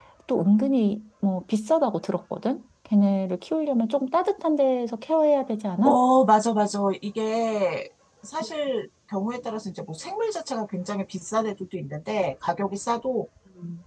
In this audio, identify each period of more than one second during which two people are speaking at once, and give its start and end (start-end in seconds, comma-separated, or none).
none